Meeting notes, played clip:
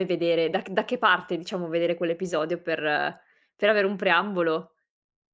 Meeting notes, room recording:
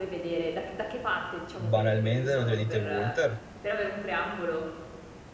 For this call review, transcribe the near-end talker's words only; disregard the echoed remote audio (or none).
banalmente lo direi di The Walter.